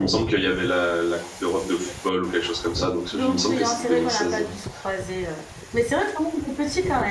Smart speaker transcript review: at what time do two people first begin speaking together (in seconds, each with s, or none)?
3.1 s